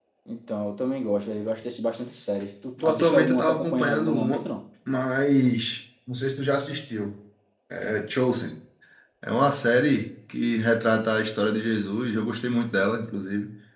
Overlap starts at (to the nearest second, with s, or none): 3 s